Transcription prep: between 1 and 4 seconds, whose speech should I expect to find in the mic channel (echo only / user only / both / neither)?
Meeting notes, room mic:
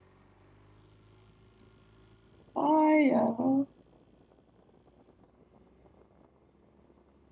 user only